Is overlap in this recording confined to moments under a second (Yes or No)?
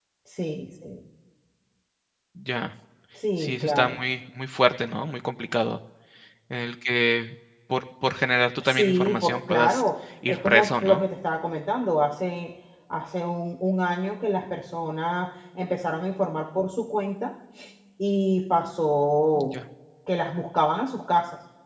No